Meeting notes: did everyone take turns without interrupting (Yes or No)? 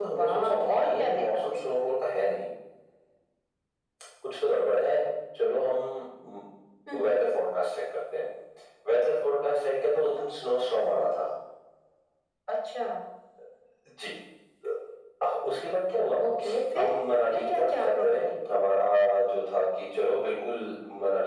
No